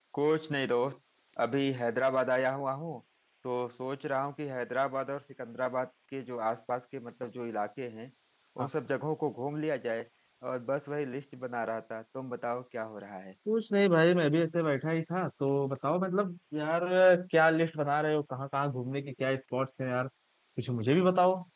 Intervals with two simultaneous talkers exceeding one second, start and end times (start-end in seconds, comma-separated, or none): none